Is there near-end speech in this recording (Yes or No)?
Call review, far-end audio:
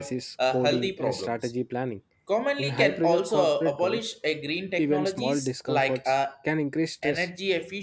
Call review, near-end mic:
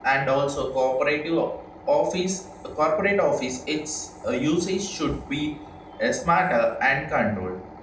Yes